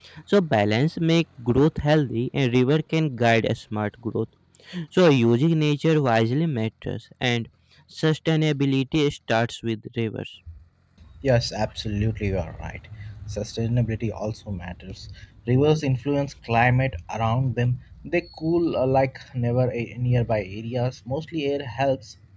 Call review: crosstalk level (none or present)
none